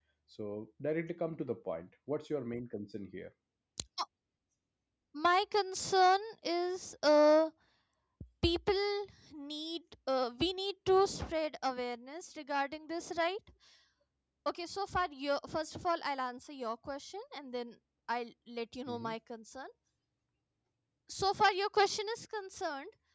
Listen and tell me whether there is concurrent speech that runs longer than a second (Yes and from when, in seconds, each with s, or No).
No